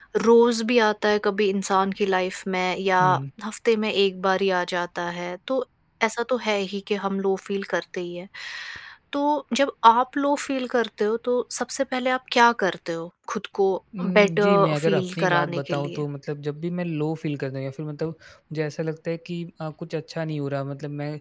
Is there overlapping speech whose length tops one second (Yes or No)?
Yes